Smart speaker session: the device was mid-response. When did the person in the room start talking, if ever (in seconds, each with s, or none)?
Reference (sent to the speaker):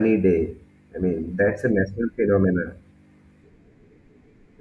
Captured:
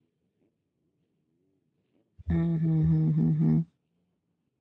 2.3 s